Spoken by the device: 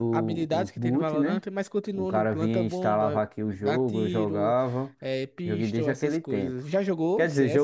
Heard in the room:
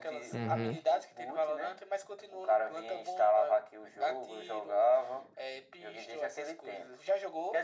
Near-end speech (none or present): present